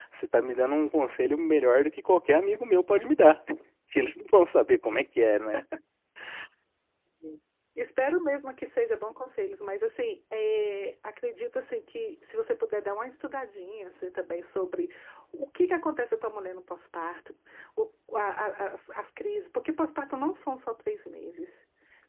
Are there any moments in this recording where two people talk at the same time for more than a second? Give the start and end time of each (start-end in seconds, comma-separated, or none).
none